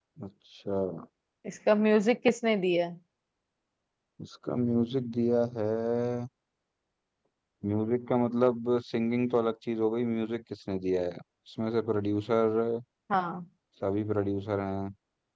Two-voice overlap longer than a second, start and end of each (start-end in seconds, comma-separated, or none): none